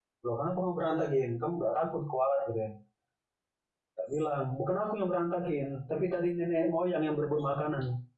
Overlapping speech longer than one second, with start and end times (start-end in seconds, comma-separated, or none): none